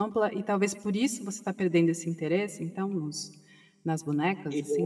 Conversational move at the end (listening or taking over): taking over